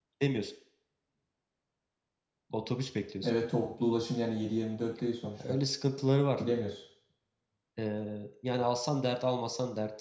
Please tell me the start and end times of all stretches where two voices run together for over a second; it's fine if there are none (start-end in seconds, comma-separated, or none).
none